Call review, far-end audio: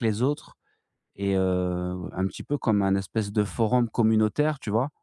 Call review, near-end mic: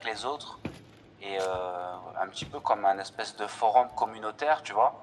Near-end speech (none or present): none